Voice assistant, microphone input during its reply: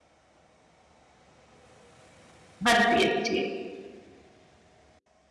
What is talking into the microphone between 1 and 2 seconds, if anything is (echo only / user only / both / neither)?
neither